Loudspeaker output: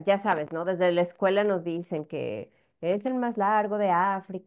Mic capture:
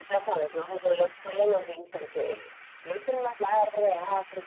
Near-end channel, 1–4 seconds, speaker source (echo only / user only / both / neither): echo only